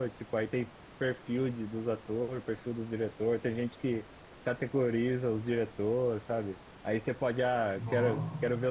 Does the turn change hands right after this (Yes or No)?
No